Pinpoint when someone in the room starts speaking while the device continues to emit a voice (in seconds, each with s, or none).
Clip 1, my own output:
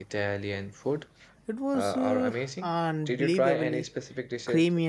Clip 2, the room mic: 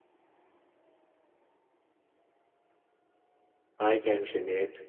3.8 s